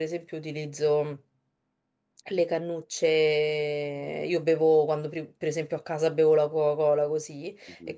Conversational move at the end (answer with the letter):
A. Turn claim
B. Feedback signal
B